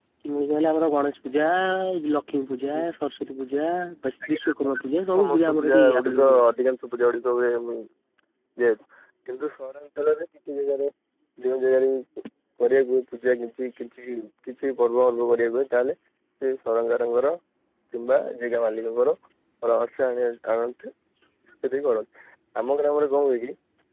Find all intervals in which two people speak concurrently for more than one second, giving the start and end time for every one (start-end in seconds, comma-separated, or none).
5.2-6.5